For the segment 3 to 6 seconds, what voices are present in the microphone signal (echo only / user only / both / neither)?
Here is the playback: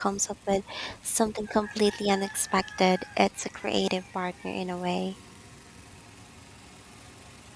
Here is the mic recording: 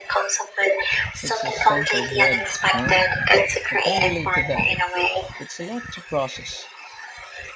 both